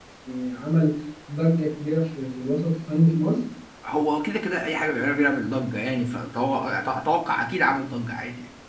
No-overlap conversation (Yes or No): Yes